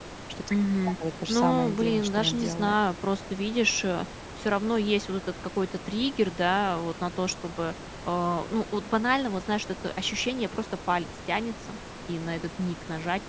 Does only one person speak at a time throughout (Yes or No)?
No